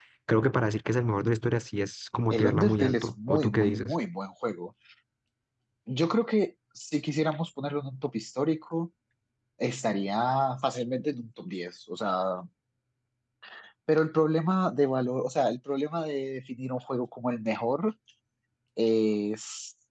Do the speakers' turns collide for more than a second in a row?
Yes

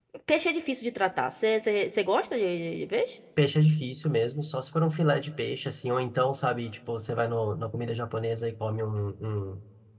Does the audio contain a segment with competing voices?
No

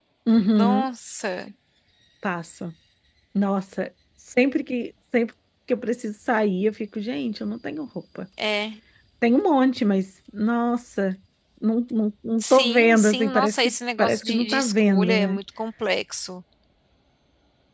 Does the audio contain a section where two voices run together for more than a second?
Yes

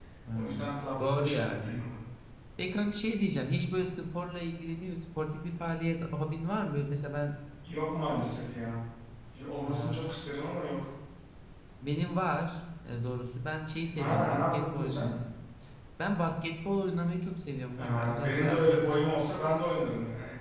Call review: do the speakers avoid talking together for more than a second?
No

